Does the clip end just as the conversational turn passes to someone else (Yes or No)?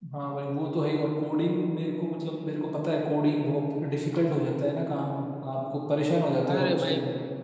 Yes